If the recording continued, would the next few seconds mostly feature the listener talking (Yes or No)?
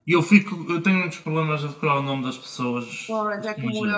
Yes